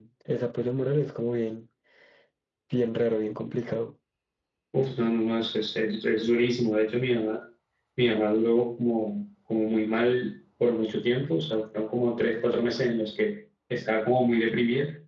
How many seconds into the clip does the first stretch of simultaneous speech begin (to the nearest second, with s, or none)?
none